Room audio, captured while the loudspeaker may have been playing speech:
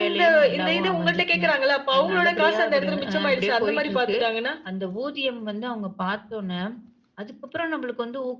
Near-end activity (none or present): none